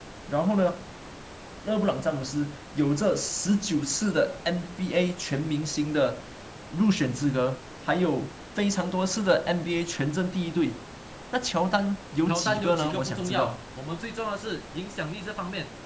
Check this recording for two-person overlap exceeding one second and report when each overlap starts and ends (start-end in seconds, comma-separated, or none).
12.3-13.6